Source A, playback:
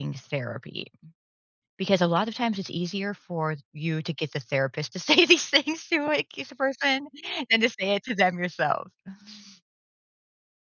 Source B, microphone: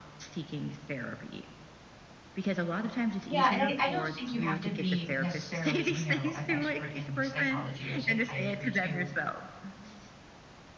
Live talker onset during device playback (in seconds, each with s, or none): 3.2 s